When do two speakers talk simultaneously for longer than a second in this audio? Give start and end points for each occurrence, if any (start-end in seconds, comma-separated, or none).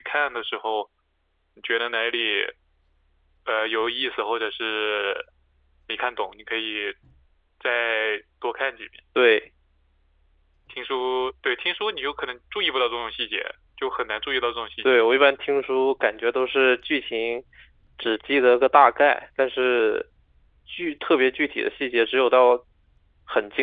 none